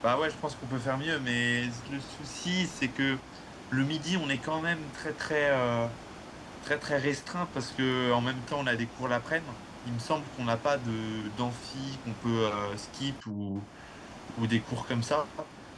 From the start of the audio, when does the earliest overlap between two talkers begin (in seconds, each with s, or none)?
none